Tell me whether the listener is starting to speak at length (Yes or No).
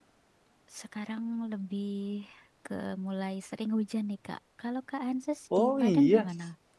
Yes